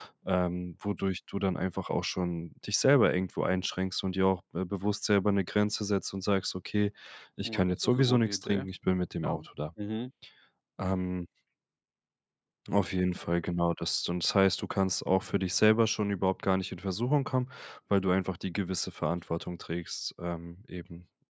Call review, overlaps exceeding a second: present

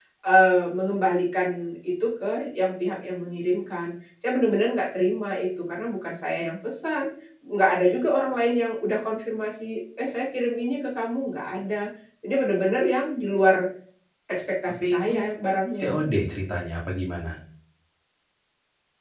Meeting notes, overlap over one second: none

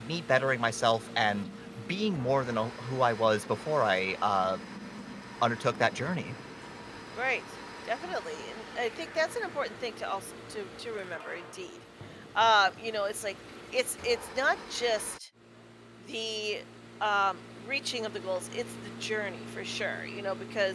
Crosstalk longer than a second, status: none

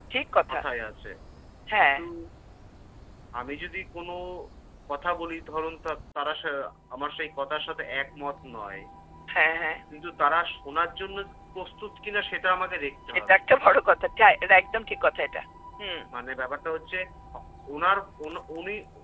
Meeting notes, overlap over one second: none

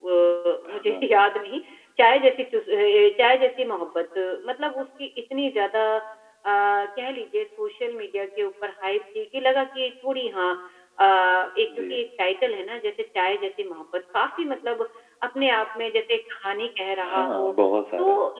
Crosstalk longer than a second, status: none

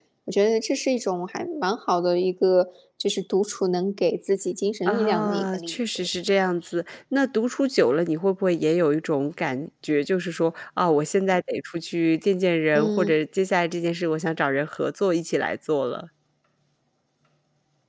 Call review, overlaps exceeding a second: present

